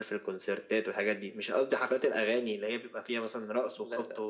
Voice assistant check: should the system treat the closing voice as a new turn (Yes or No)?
No